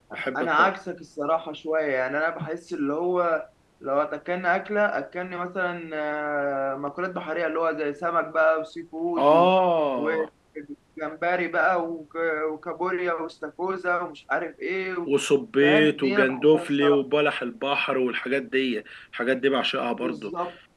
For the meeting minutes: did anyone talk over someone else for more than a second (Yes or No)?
Yes